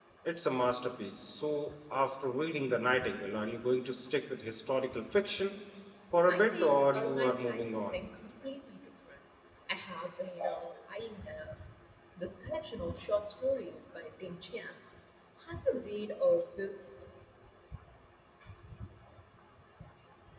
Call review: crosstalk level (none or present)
present